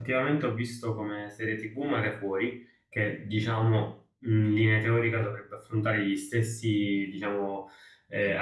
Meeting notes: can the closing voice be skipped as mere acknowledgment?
Yes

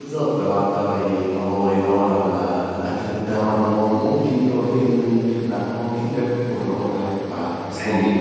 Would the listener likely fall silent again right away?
No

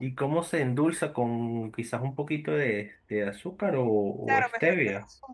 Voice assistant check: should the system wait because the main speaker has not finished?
No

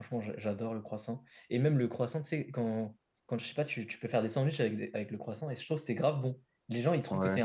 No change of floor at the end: Yes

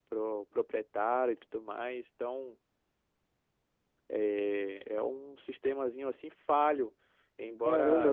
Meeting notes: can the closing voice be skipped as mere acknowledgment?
No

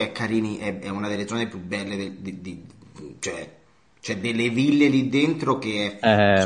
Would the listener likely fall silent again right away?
No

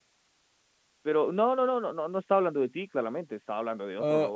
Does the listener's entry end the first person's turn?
Yes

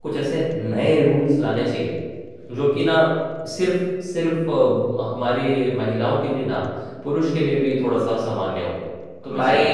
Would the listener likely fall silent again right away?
No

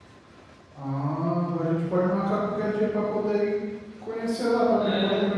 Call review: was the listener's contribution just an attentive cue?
No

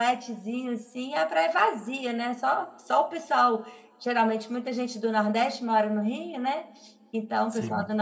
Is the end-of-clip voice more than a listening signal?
No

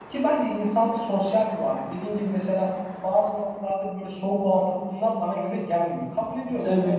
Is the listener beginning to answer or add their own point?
No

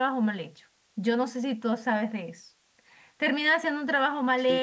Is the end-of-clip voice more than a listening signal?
No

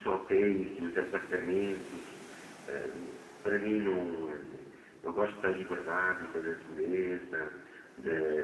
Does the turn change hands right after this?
No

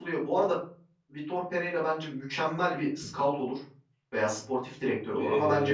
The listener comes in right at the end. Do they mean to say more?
Yes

